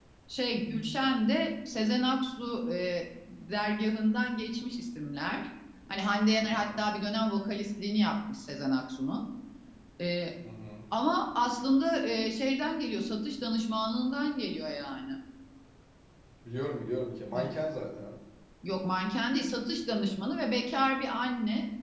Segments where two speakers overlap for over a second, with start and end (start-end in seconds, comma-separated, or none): none